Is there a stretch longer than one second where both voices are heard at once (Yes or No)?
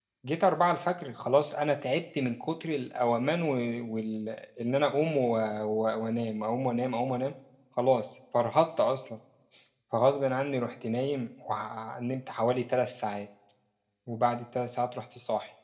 No